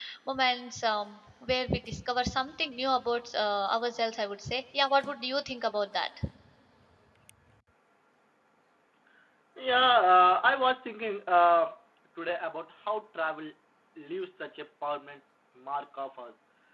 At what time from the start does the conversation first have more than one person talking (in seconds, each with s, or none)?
none